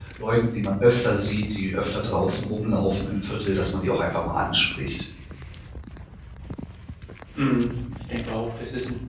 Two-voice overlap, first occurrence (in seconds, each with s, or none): none